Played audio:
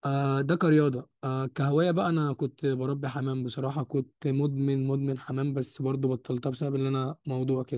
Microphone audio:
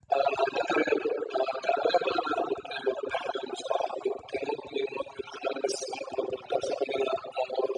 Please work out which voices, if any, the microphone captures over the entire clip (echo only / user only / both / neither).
echo only